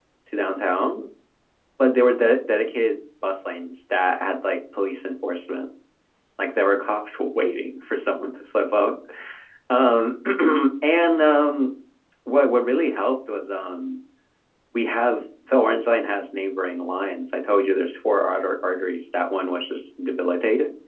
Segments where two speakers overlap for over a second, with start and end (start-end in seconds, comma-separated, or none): none